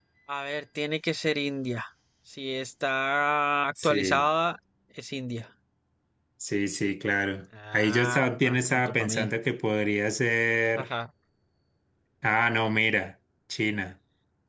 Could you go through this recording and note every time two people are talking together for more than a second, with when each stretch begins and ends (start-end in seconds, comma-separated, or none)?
7.7-9.3